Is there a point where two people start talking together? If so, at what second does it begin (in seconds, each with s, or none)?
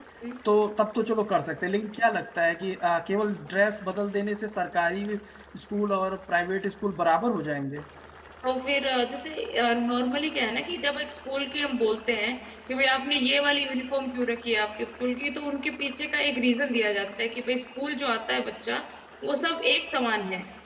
none